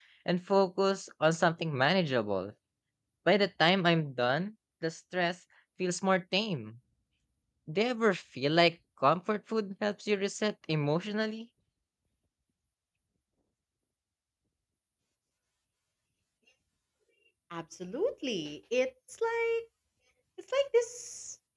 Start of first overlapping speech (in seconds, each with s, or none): none